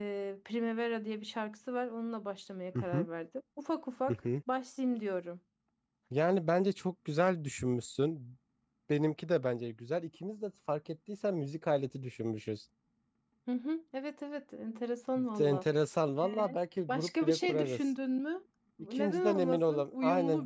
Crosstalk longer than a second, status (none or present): present